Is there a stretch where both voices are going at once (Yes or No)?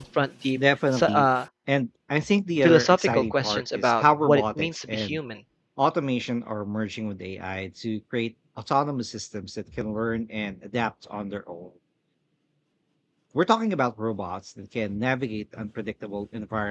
Yes